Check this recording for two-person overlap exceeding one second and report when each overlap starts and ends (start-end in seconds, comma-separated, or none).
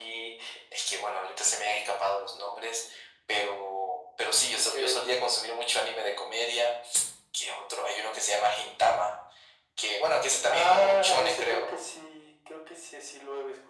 10.5-11.7